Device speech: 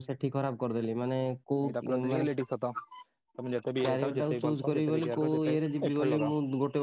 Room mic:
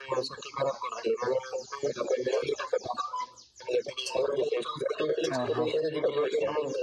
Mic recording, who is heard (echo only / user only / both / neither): both